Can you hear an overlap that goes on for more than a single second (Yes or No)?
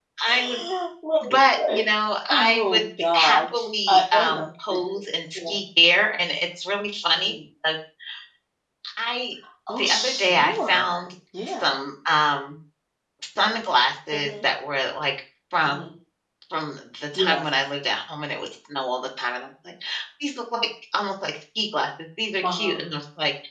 Yes